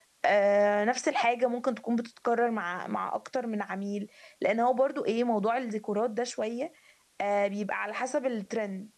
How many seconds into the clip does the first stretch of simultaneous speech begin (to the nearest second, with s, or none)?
none